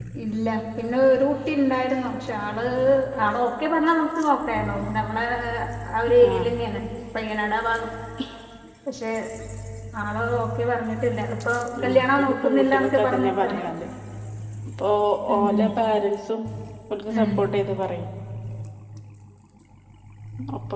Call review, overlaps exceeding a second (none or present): present